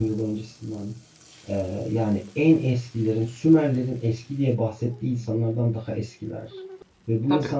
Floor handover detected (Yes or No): No